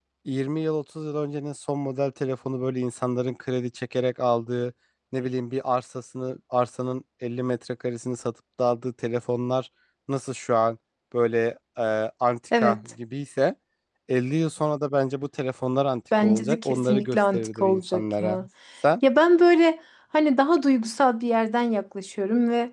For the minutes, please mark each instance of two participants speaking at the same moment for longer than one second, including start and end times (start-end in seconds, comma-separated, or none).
16.2-18.4